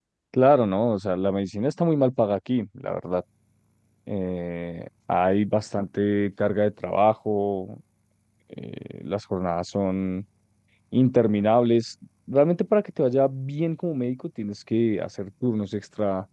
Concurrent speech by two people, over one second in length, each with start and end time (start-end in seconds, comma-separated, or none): none